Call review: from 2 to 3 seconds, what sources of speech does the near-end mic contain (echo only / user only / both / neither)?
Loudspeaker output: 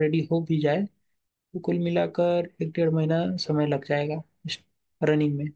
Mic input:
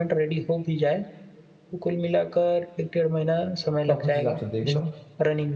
echo only